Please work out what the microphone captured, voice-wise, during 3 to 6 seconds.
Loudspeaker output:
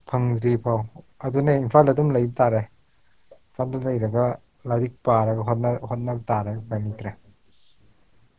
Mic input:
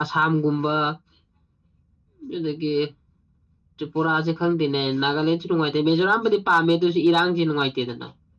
user only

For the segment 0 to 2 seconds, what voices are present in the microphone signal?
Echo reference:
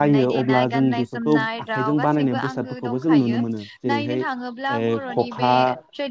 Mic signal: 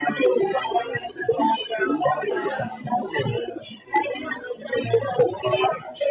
echo only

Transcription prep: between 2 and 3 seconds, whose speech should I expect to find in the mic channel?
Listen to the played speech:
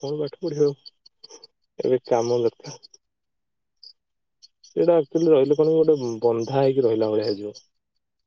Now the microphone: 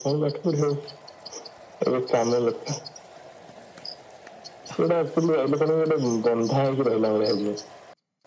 echo only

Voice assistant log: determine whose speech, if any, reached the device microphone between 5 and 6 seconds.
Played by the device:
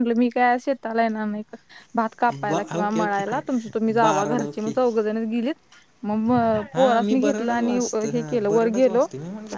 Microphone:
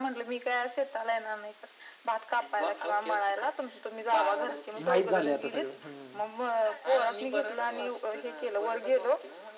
both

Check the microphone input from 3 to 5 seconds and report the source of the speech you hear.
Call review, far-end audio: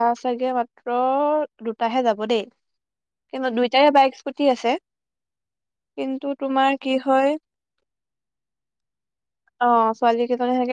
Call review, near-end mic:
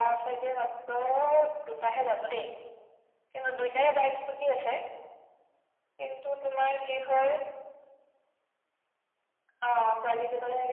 echo only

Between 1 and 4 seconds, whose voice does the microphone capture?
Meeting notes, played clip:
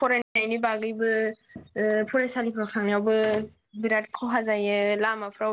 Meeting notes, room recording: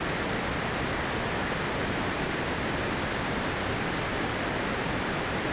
neither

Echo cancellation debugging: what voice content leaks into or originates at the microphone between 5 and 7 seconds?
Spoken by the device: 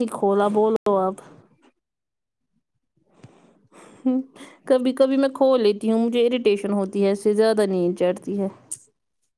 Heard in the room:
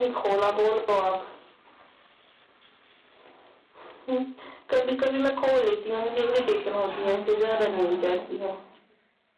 both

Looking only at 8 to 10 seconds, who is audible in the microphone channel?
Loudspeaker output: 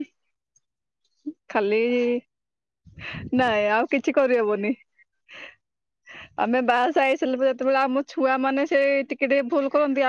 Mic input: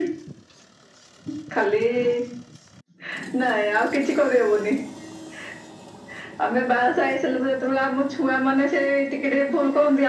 echo only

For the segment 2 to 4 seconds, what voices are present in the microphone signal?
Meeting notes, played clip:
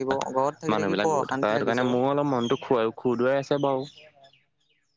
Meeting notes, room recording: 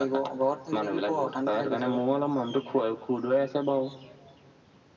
echo only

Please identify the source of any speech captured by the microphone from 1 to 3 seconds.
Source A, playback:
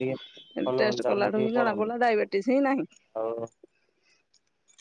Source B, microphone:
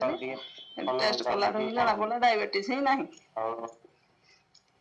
echo only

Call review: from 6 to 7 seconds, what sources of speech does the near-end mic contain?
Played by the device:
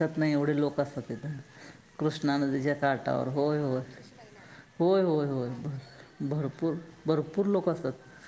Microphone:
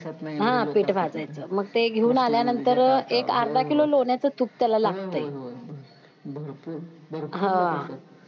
echo only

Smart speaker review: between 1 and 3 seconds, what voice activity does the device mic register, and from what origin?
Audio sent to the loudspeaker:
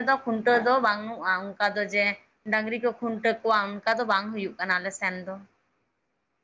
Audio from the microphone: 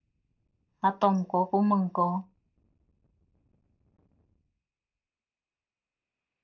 user only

